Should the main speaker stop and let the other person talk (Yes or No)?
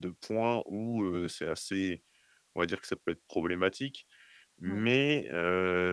No